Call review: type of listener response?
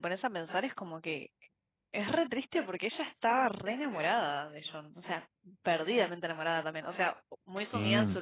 listening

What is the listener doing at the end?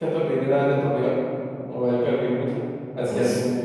taking over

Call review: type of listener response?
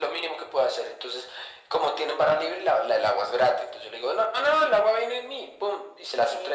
listening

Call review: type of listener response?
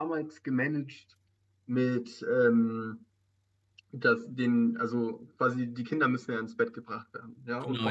listening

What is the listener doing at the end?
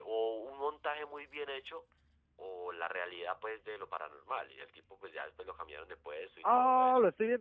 taking over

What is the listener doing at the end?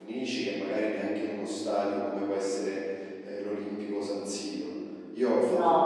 listening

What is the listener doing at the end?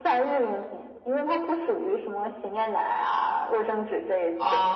taking over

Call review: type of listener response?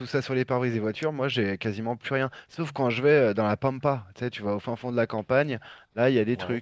listening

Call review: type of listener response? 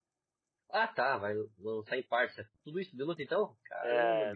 taking over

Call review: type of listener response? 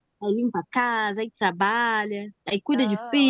taking over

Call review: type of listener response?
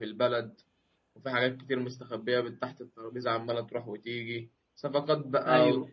listening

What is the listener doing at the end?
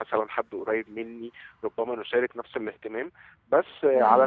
listening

